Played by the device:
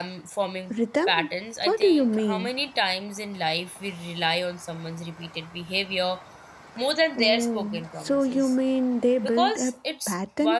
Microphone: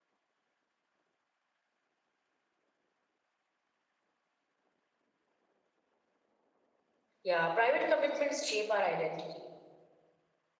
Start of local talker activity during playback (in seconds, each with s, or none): 7.2 s